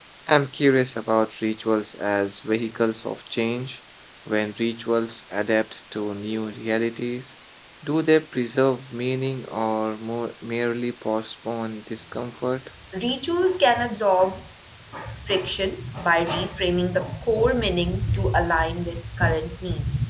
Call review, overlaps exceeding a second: none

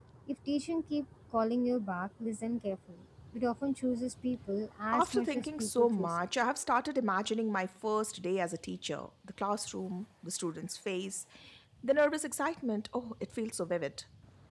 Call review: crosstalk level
present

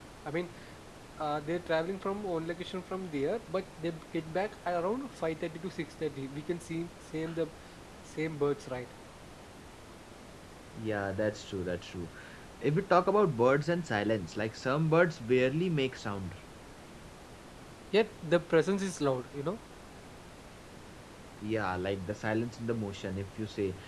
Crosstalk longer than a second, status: none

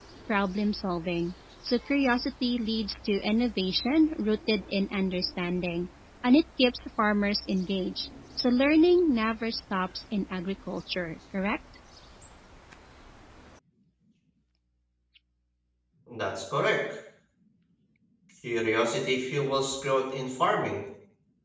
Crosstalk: none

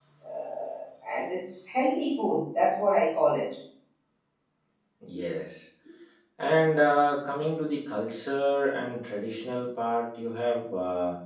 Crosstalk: none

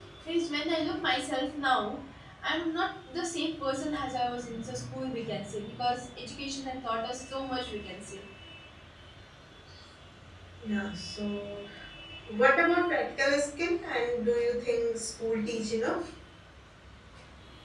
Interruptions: none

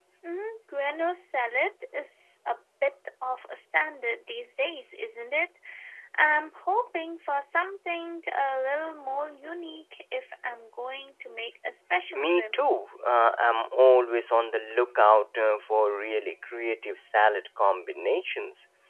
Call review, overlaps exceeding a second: none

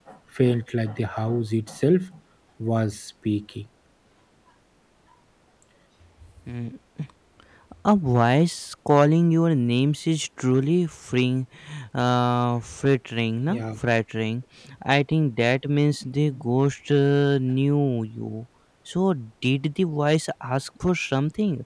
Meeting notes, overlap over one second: none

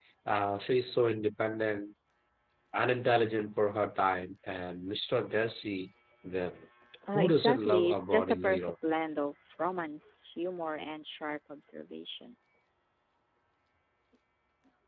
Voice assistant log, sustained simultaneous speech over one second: present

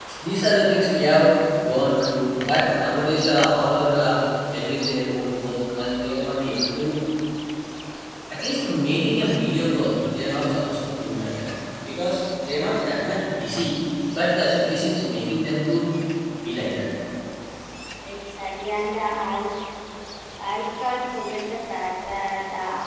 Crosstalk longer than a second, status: none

